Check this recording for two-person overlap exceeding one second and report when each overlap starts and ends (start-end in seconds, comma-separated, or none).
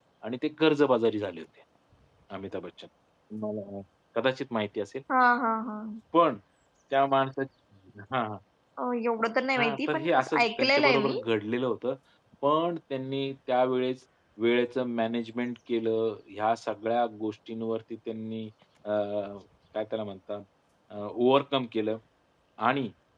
9.6-11.2